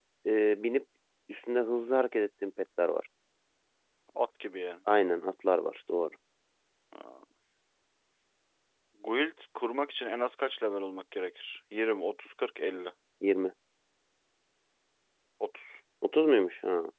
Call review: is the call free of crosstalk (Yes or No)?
Yes